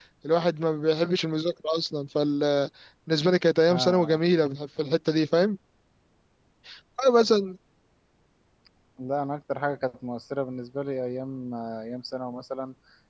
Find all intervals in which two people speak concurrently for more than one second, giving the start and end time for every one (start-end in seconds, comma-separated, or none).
none